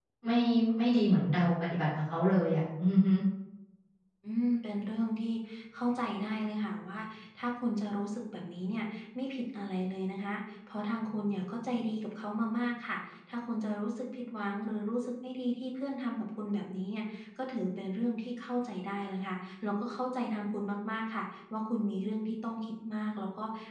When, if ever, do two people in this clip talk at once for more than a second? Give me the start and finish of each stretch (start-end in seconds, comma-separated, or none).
none